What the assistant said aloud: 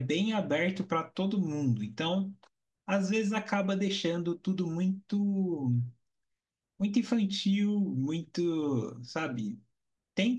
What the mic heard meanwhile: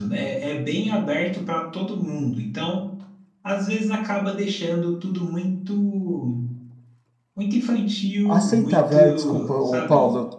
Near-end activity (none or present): present